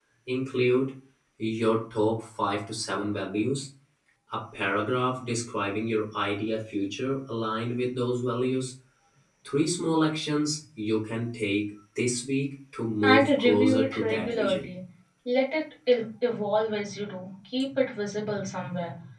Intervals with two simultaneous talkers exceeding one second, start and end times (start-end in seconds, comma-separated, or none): 13.0-14.6